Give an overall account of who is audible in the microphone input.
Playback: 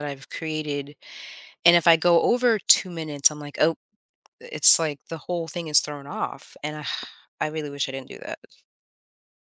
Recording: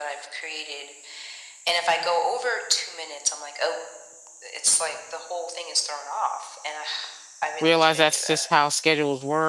both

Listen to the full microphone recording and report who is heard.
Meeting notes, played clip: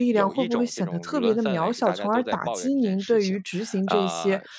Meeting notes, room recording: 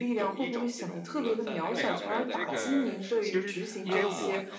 both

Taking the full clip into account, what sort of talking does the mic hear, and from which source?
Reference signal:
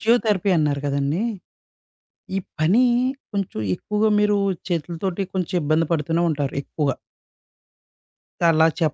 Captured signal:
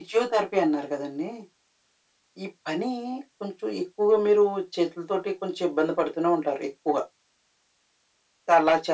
echo only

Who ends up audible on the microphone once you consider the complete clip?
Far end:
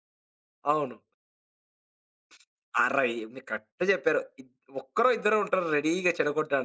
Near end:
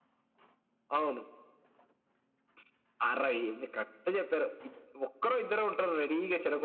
echo only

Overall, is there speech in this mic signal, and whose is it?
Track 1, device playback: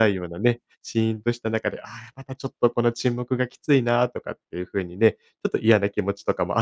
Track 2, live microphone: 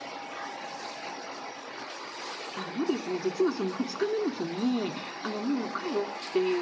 user only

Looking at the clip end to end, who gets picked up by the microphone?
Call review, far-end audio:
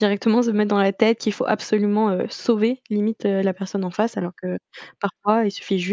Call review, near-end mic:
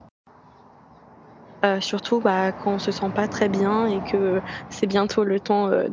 user only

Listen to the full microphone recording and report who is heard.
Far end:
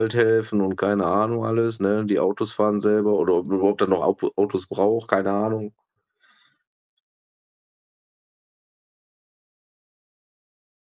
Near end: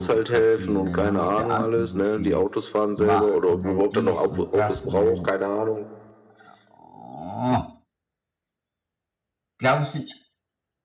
both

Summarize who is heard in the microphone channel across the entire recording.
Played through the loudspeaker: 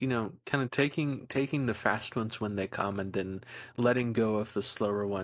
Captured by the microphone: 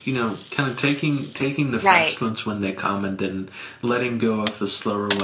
both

